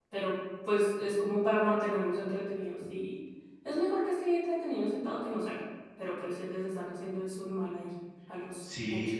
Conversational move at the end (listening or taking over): taking over